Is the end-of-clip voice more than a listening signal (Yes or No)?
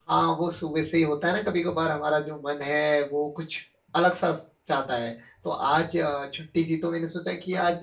No